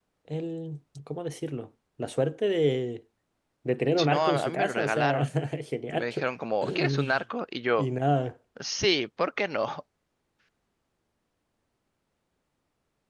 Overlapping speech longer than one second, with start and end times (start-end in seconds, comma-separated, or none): 4.0-5.2